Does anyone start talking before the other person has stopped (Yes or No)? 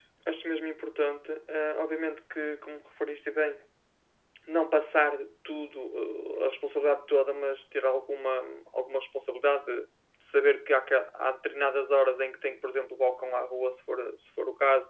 No